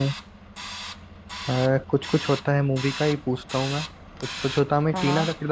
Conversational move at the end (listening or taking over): listening